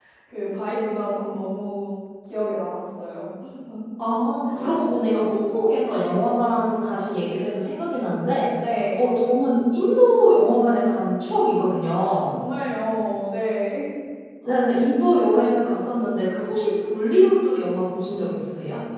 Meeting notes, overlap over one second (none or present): none